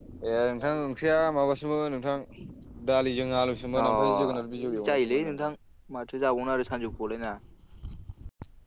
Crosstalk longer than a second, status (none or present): present